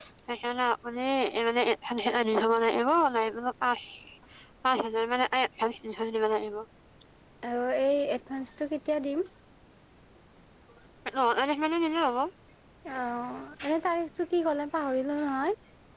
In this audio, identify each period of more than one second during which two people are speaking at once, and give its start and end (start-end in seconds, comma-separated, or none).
none